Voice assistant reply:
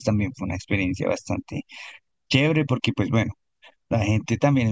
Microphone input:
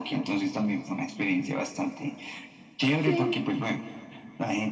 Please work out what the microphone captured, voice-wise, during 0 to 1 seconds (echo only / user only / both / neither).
echo only